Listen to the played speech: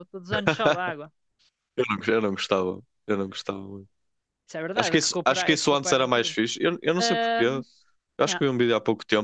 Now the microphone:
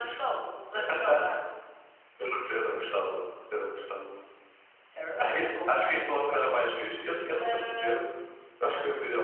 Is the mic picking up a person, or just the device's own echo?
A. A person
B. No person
B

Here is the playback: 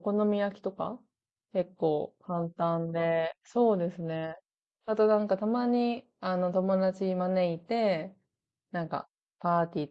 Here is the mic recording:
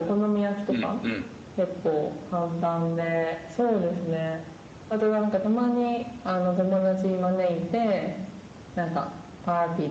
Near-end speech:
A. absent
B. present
B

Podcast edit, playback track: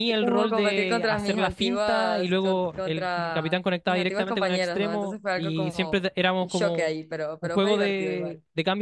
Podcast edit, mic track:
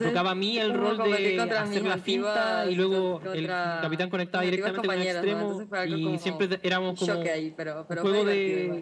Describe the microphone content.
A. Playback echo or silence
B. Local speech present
A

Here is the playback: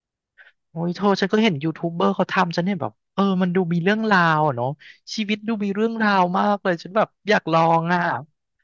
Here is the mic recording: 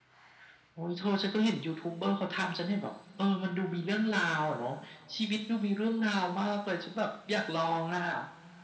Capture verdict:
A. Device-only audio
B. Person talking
A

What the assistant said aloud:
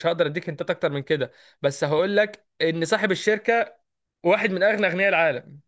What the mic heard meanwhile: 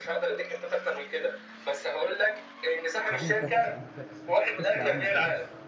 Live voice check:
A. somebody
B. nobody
A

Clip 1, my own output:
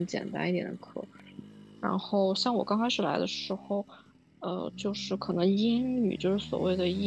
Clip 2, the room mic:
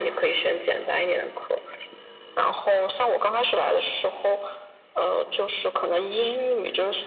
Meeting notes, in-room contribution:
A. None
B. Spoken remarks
A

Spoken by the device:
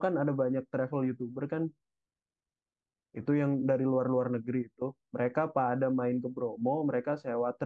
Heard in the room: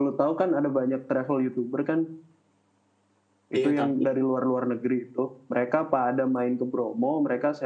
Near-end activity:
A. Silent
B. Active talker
B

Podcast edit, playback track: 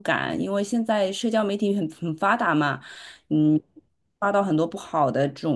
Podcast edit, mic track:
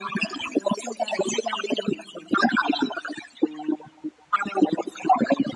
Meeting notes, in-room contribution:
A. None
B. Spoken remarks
A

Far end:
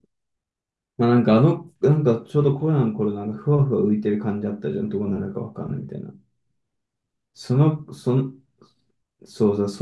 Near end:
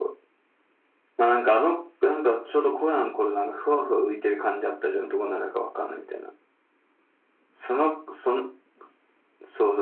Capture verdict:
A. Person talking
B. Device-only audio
B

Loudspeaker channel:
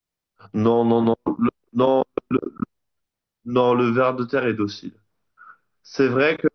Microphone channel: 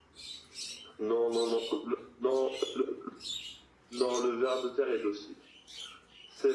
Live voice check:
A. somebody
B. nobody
B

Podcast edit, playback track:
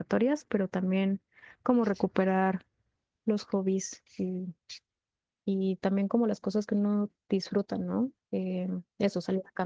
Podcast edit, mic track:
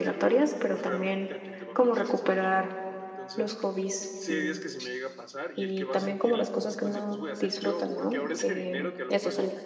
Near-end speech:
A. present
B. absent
A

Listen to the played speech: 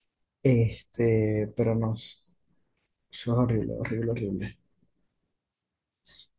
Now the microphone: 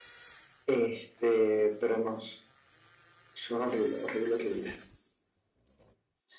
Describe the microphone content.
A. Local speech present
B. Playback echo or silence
B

